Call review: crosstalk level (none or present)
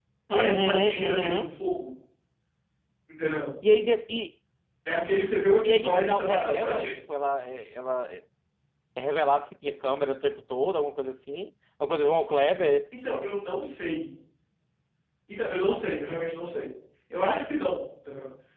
present